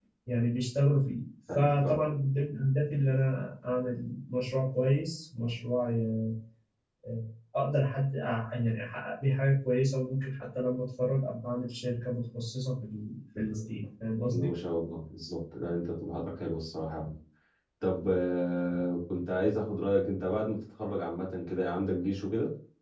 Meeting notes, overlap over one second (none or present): none